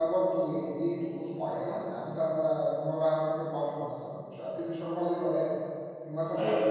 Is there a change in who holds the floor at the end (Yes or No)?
Yes